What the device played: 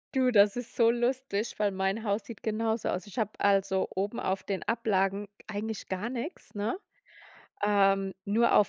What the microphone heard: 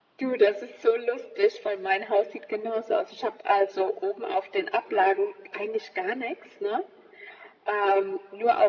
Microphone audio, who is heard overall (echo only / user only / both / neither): echo only